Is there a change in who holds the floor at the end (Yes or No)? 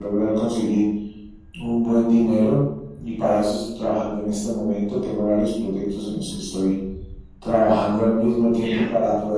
No